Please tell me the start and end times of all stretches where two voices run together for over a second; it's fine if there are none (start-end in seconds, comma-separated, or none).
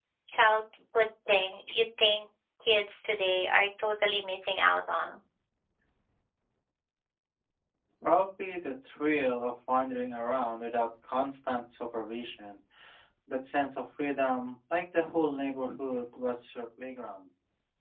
none